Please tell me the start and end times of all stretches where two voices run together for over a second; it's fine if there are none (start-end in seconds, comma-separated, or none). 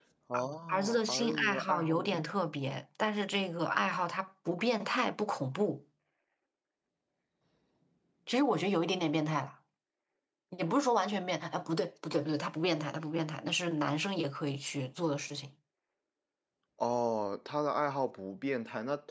0.7-2.2